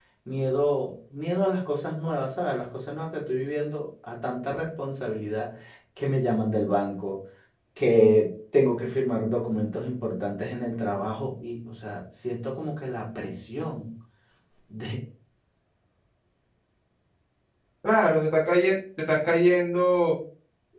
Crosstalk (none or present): none